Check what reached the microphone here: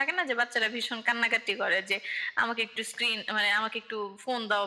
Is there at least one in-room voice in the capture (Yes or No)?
No